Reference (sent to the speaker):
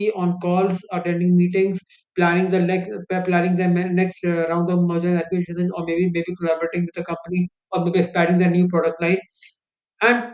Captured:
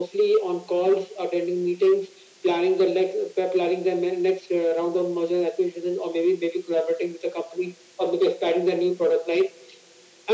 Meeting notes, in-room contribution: none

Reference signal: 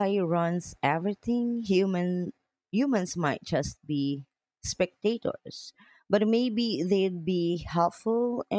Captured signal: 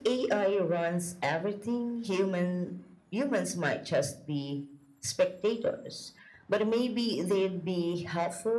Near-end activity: none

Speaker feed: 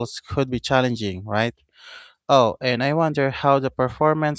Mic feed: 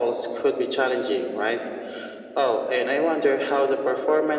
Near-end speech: none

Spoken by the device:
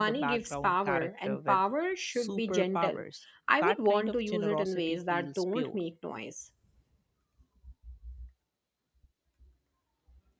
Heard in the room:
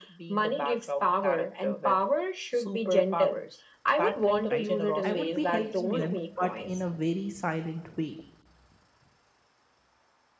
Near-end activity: present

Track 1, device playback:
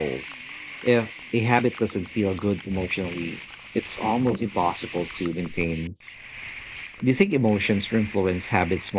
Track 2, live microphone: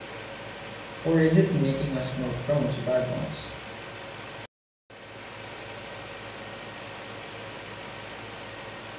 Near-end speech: present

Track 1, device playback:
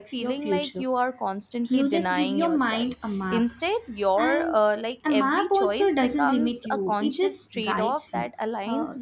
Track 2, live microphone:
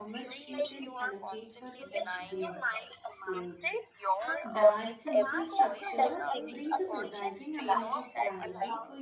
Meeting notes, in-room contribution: present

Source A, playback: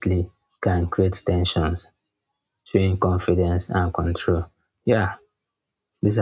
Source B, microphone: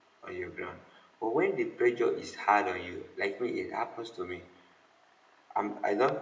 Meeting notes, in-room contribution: present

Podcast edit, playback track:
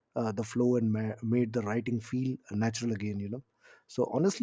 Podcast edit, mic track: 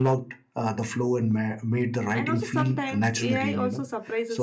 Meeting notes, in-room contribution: present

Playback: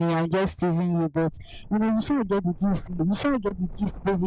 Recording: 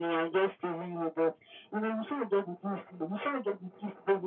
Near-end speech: none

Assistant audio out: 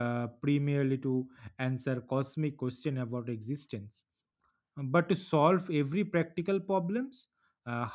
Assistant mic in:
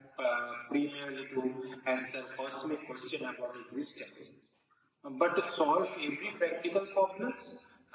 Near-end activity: none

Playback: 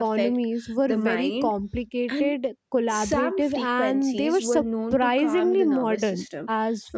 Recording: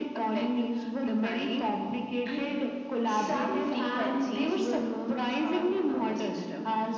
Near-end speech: none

